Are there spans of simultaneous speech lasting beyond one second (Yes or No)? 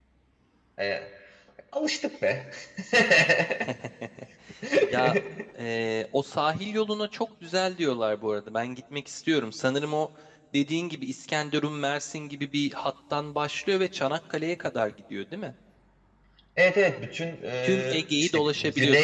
Yes